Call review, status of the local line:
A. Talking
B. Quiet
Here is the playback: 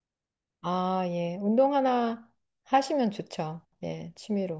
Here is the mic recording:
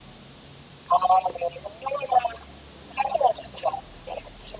B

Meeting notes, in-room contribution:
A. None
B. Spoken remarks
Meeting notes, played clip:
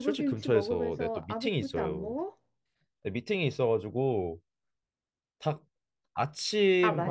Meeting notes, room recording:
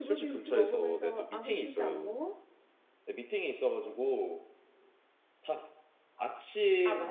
A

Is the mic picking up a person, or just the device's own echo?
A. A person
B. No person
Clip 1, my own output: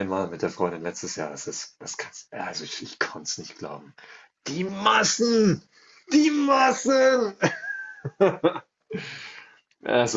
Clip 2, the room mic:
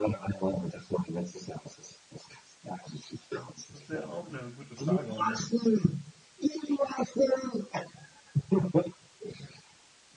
A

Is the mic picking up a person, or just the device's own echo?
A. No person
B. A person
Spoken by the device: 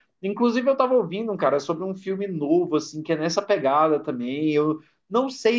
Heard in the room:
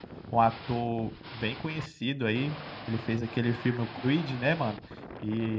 B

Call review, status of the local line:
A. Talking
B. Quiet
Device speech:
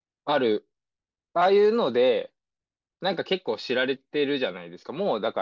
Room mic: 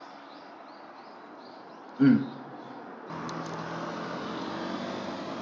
A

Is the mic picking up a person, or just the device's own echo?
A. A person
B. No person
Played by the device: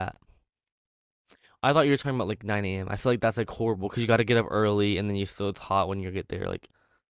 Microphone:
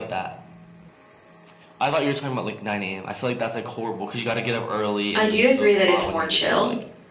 A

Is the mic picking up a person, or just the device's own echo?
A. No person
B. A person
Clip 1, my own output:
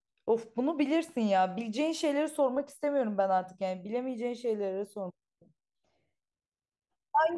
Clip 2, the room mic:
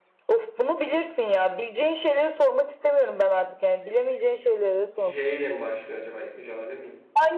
B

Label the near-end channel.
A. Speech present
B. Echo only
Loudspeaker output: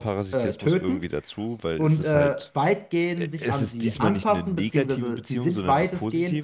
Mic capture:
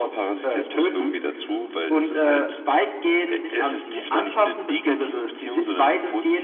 B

